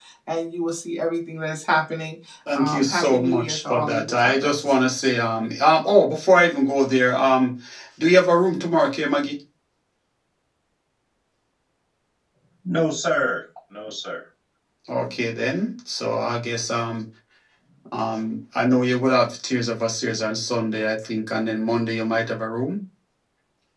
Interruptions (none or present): present